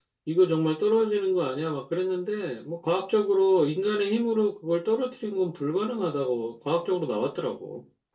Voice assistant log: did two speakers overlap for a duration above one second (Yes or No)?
No